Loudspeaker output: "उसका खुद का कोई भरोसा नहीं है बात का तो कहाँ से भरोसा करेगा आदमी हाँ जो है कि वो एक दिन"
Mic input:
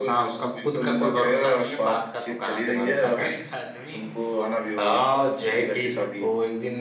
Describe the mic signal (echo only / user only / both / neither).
both